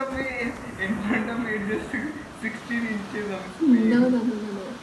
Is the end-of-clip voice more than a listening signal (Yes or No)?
Yes